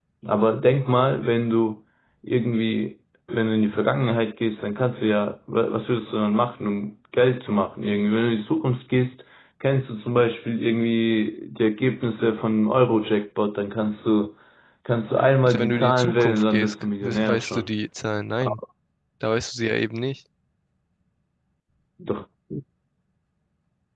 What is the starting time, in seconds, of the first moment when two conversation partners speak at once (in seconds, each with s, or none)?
15.5 s